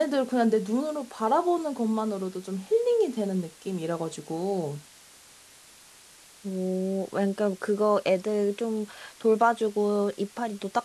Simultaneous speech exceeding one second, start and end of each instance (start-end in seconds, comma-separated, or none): none